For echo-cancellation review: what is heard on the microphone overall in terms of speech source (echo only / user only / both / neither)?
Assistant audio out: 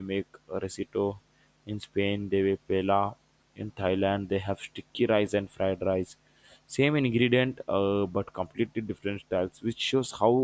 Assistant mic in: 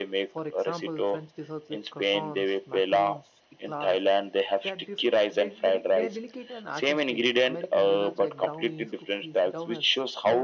both